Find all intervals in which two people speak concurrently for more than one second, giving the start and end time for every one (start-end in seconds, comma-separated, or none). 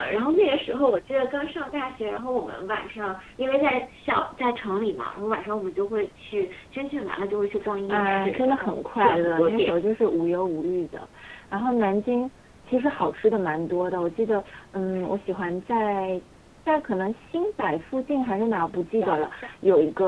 7.9-9.8